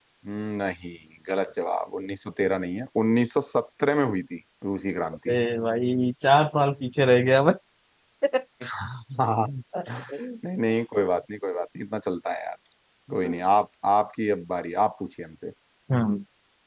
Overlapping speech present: No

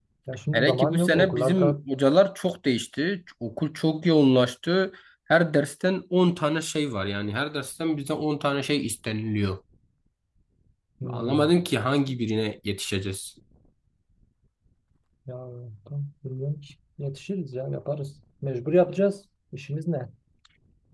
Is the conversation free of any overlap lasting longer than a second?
No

